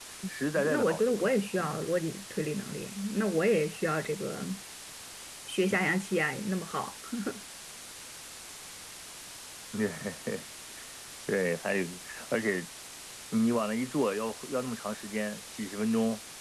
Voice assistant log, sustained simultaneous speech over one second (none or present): present